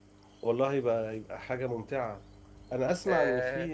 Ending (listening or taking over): listening